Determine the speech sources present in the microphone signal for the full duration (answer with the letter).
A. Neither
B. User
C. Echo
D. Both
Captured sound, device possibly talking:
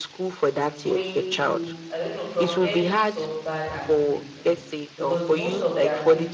D